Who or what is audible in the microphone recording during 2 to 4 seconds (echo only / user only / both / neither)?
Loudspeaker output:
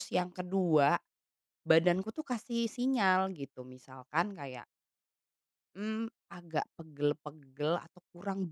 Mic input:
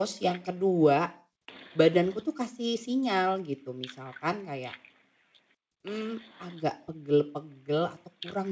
echo only